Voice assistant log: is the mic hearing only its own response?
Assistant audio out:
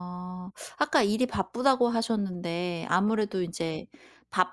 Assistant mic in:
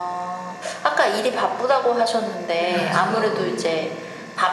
No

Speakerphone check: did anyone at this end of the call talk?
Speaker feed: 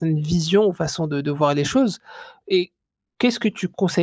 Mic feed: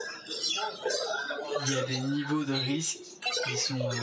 Yes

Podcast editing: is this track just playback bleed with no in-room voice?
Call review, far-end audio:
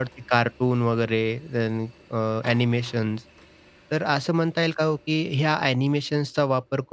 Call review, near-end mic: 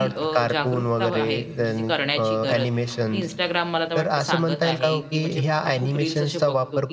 No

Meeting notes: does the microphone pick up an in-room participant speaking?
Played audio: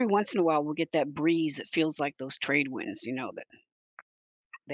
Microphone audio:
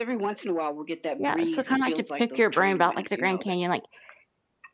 Yes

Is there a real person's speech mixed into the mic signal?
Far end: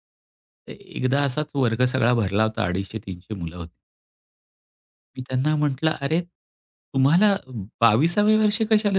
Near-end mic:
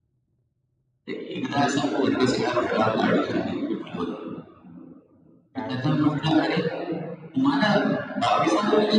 Yes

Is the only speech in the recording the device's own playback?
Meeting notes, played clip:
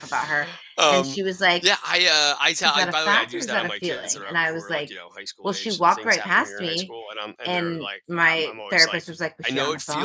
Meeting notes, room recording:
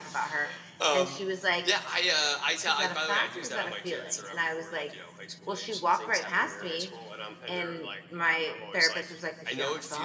Yes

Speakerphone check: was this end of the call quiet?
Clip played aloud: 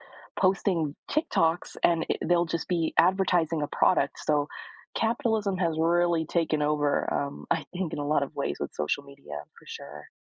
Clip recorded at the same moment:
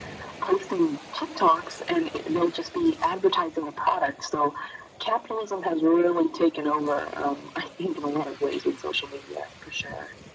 Yes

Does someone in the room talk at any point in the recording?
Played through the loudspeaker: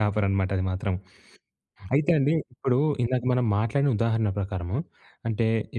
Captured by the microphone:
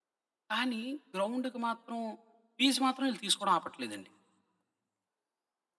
Yes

